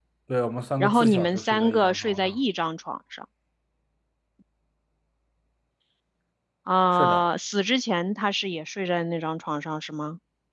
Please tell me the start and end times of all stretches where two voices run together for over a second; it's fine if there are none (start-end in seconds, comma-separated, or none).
0.8-2.4